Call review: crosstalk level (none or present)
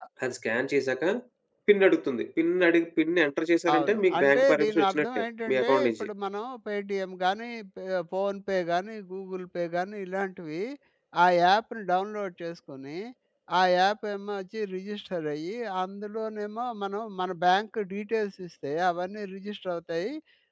present